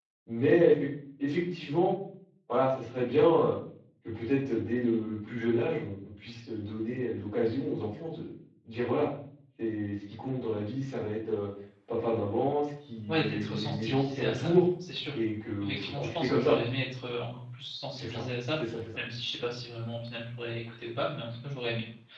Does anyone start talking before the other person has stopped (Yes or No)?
Yes